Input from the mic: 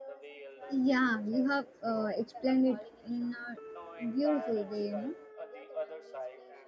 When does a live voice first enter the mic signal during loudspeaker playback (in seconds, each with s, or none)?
0.7 s